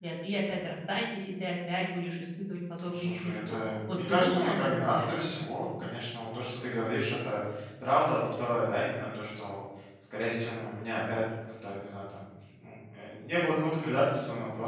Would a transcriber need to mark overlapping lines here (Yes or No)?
Yes